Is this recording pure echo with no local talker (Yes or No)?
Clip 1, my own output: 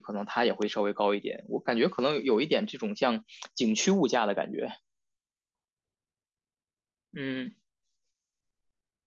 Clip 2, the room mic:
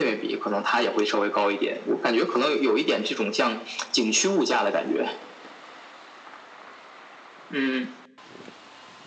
Yes